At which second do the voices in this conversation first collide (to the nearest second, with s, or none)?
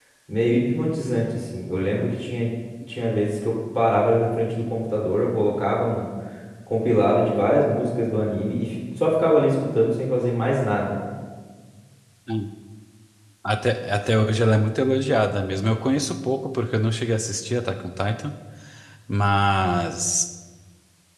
none